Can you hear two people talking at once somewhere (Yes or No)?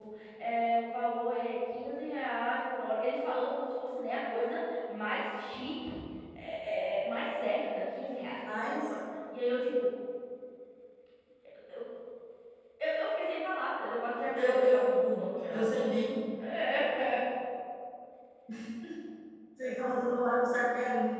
Yes